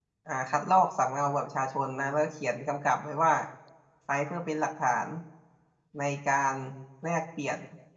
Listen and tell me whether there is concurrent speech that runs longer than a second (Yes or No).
No